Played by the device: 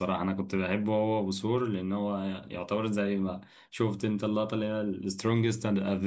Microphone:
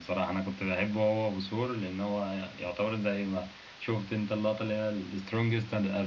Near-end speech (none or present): none